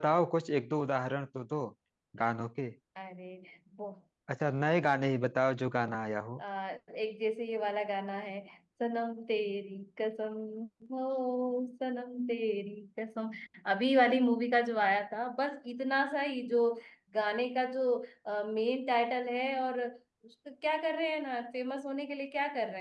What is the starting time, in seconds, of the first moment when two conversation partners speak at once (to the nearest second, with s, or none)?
none